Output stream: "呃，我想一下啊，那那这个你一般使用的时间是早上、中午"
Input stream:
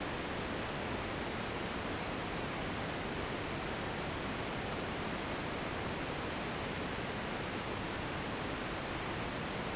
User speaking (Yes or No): No